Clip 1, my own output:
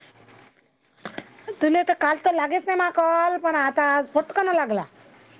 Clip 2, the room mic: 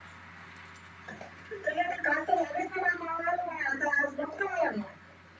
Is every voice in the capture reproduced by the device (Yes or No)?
Yes